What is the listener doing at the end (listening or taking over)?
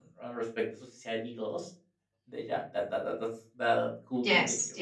taking over